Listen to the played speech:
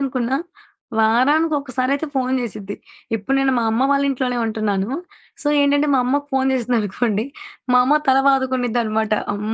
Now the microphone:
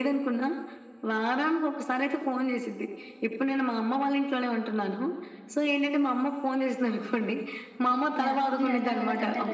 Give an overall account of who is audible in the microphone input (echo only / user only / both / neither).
both